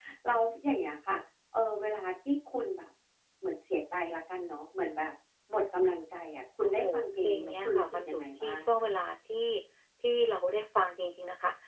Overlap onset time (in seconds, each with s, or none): 6.6 s